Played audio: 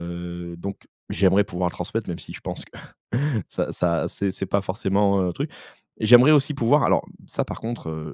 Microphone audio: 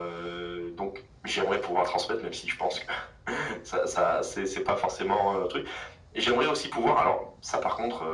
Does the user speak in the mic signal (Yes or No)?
No